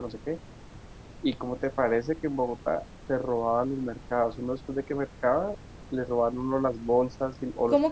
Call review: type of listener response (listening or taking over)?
listening